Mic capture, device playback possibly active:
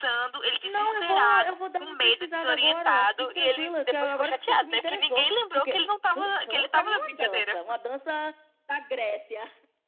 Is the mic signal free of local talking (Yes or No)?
No